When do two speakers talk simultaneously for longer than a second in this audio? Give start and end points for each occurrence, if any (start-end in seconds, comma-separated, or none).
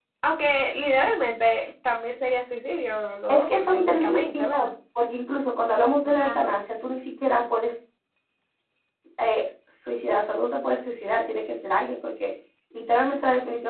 3.3-4.7